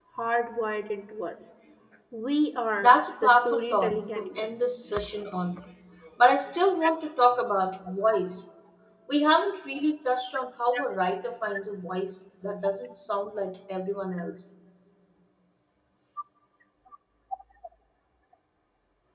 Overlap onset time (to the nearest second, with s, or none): 3 s